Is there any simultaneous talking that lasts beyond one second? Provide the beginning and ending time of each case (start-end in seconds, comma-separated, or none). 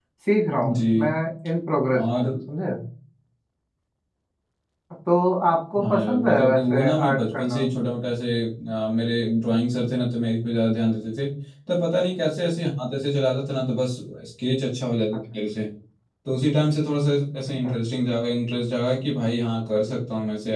5.8-7.6